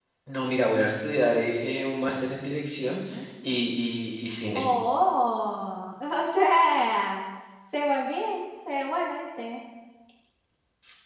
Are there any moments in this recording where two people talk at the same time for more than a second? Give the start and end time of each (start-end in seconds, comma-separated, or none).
none